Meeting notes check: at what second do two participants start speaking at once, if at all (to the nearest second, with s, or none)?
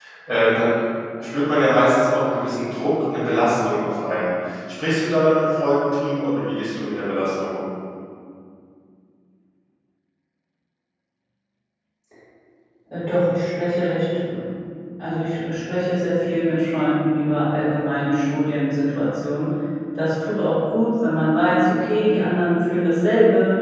none